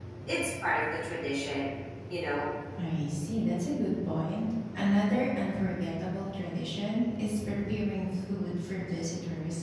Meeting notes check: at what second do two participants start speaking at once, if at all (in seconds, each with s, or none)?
none